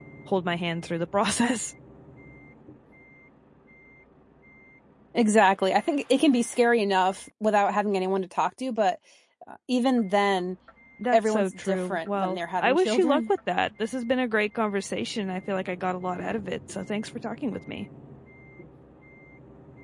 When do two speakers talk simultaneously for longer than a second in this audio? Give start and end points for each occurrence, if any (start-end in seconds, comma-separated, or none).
11.1-13.2